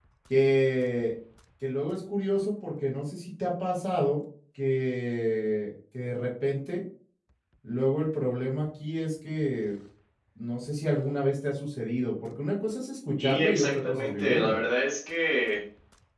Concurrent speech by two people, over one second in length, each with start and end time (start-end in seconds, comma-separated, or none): 13.2-14.6